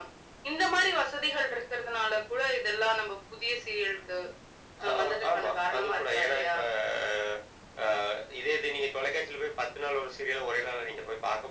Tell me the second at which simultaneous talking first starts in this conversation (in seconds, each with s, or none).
5.0 s